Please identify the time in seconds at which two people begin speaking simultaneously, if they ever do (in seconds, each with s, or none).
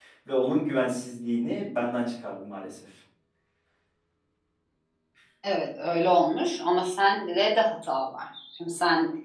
none